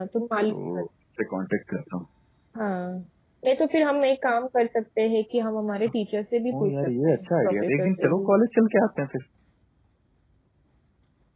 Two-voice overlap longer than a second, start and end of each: 6.6-8.3

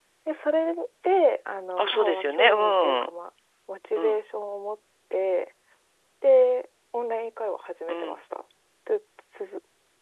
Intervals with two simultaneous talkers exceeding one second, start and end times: 1.8-3.0

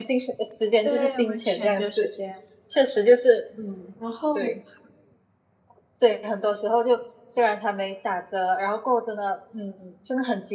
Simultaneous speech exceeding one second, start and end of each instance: 0.8-2.1

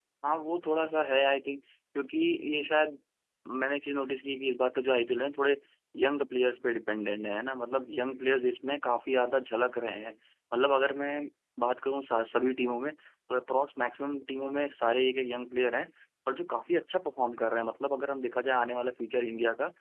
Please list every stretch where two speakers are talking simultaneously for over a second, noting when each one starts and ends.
none

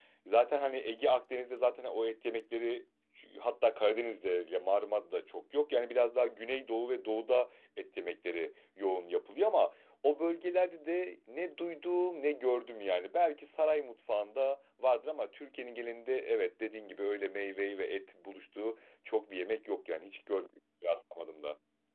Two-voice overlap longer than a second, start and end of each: none

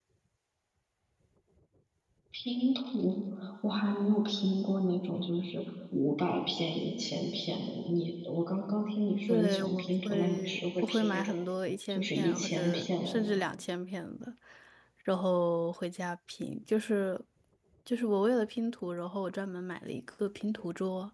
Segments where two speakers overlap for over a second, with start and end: 9.3-11.3, 11.9-13.4

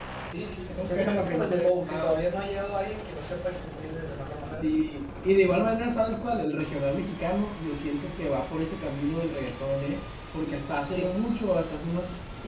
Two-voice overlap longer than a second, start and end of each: 0.8-2.2

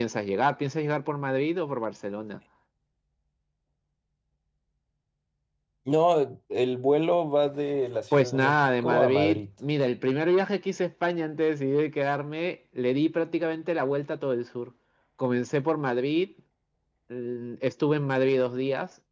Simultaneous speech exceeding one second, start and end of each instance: 8.2-9.4

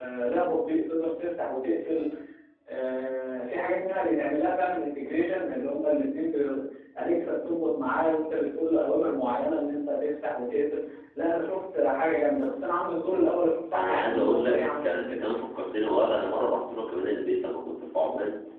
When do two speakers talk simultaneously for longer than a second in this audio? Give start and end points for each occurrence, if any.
13.7-15.2

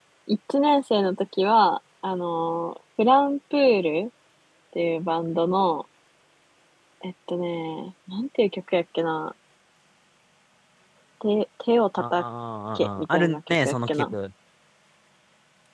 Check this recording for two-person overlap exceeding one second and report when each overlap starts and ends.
12.8-14.2

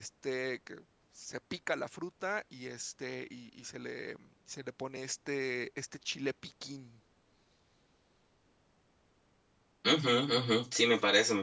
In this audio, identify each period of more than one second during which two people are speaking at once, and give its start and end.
none

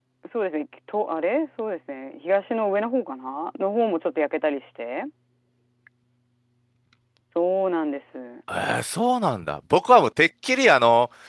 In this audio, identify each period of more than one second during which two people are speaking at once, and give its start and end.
none

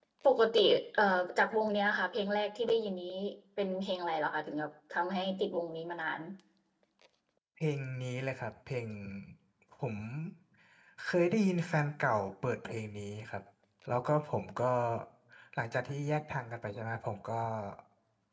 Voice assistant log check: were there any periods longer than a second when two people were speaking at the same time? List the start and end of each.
none

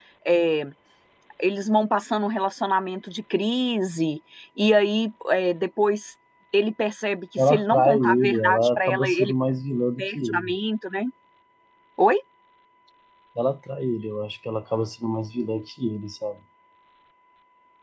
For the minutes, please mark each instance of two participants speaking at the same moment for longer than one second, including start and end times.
7.4-9.3

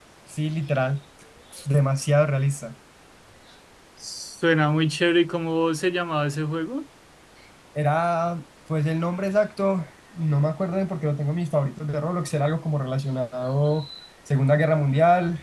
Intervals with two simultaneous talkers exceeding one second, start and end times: none

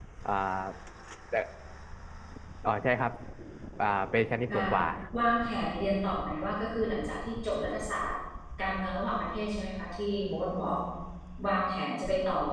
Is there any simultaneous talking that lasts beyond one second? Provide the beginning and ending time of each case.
none

